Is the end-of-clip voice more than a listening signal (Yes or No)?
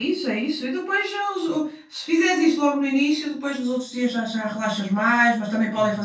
No